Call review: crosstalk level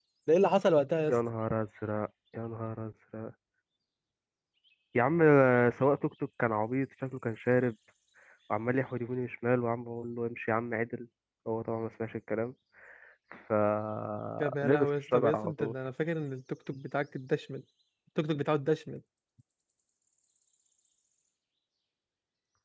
present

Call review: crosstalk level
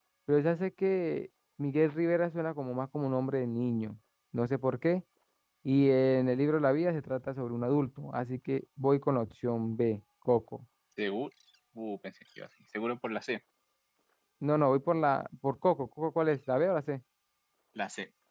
none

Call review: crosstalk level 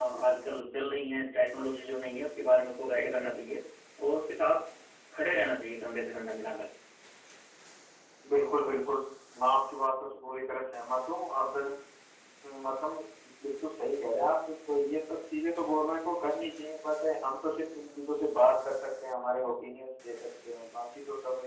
none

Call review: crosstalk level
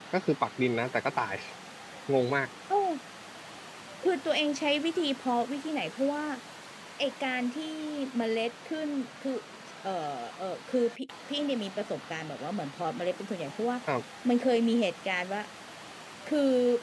none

